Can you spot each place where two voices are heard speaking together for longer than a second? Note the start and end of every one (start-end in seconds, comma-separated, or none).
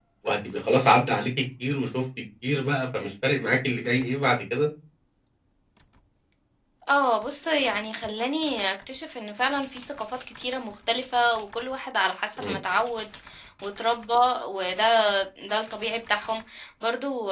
none